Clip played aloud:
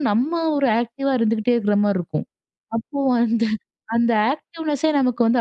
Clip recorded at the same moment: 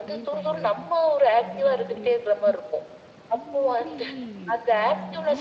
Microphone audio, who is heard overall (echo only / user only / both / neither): both